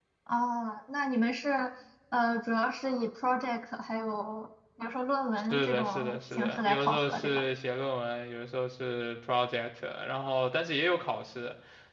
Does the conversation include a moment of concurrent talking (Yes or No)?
Yes